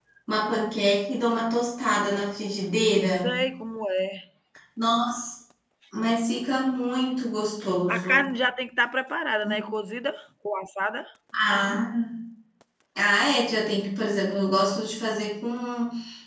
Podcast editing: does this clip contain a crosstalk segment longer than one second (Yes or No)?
No